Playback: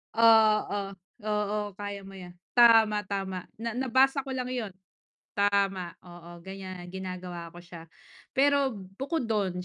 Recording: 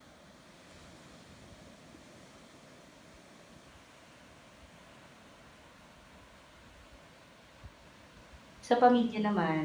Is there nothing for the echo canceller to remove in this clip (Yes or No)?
Yes